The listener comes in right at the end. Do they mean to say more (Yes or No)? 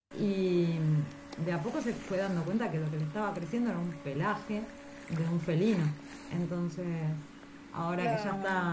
No